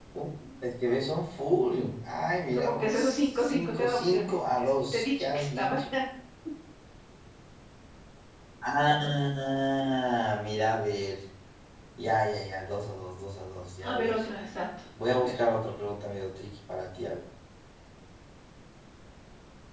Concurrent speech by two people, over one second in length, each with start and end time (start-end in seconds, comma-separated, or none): 2.5-5.8